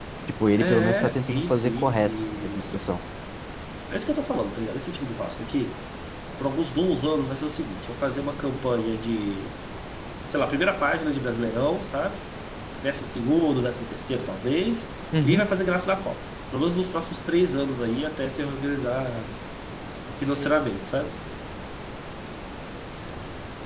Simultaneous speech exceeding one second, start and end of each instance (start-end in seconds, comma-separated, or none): 0.6-2.8